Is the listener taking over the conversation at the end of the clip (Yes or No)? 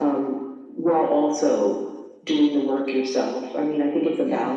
No